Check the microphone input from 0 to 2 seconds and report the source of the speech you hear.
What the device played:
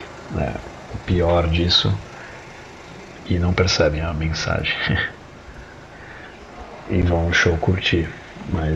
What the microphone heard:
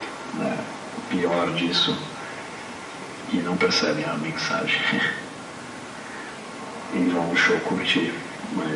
echo only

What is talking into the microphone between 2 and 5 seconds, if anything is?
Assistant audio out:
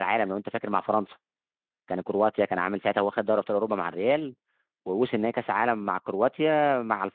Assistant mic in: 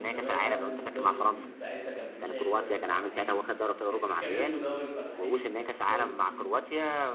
both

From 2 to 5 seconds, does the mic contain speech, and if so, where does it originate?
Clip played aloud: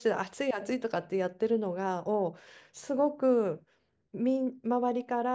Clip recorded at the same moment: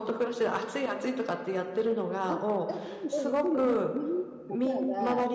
both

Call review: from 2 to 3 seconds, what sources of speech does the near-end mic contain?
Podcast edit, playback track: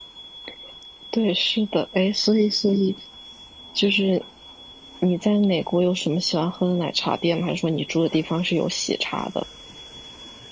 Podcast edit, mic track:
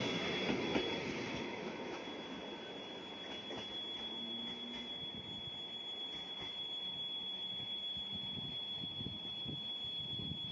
neither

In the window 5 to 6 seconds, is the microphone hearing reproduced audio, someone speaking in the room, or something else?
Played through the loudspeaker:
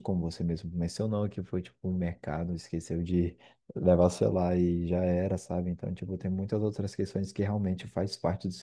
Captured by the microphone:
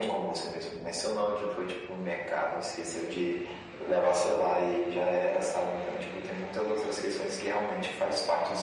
echo only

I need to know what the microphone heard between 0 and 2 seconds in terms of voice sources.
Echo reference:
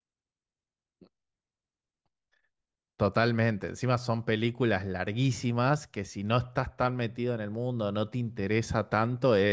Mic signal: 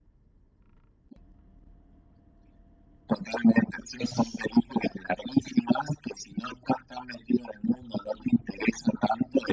neither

